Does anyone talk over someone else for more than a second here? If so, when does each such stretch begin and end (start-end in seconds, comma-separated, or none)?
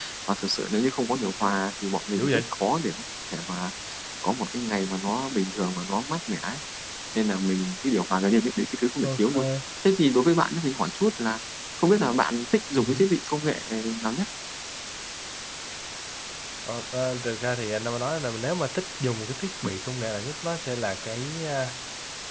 none